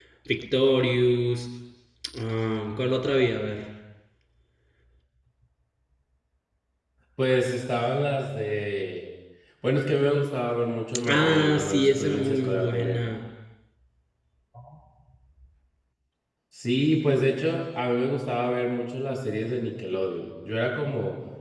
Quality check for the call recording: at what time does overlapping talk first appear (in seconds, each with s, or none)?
11.1 s